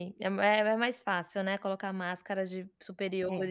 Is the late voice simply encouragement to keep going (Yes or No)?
Yes